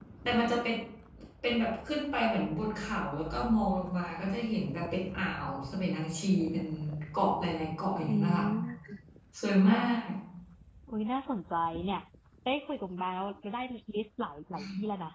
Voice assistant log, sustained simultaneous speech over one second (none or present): none